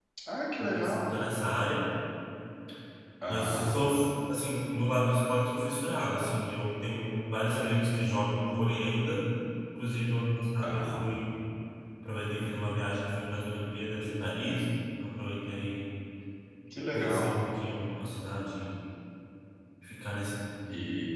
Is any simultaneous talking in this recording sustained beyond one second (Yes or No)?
No